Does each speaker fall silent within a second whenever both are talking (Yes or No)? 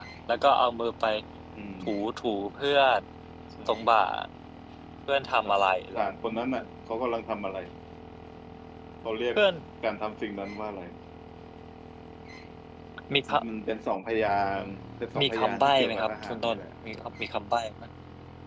No